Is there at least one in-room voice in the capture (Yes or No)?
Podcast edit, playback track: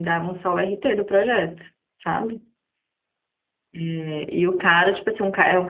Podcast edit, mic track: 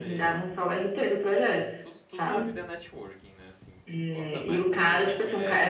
Yes